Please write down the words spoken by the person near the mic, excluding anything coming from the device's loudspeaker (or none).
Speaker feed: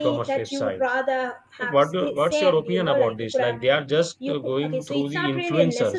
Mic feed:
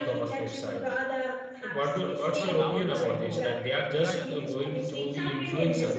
So, but nowadays, you know, yeah, yeah, please, please.